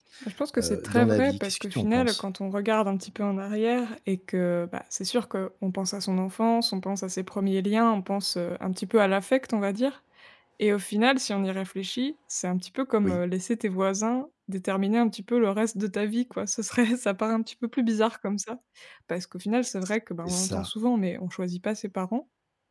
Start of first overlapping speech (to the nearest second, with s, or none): 1 s